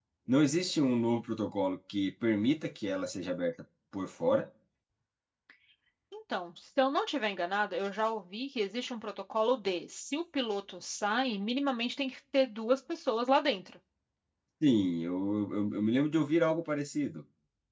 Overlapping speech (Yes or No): No